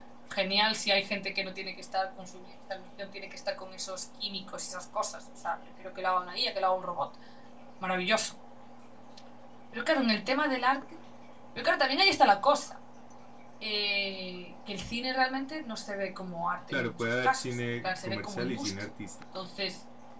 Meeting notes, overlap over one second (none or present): present